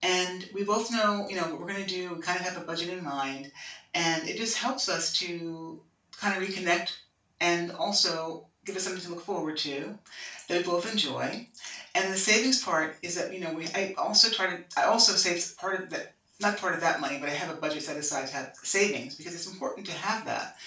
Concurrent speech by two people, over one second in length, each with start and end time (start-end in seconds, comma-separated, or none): none